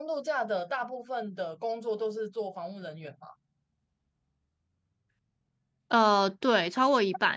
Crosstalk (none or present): none